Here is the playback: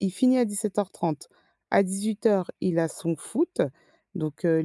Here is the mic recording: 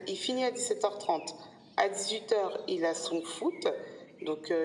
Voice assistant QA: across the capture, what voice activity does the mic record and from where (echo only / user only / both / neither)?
echo only